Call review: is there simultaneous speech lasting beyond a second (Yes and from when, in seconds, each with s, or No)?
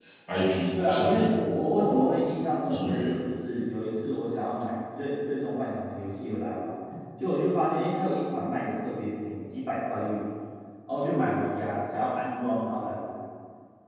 Yes, from 0.7 s